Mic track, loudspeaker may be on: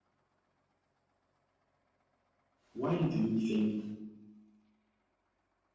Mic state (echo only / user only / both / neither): user only